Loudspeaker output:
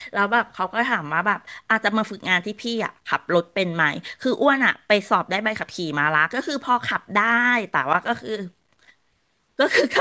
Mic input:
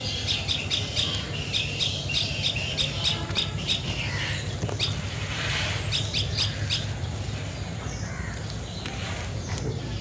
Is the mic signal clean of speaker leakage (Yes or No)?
Yes